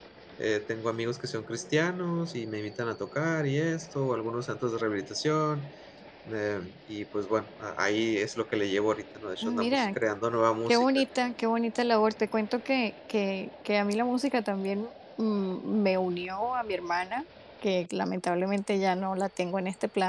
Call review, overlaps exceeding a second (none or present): none